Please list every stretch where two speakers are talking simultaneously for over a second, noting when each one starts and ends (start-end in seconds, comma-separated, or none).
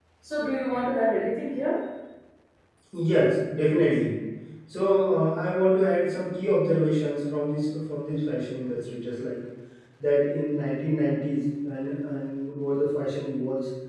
none